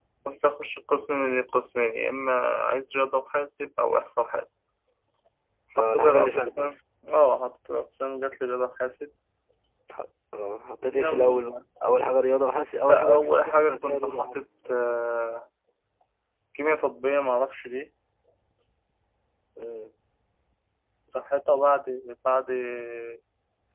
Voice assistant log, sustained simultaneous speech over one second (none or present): present